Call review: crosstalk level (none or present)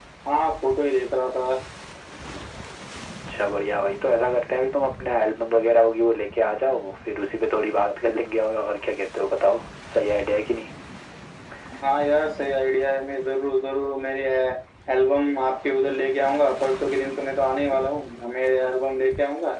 none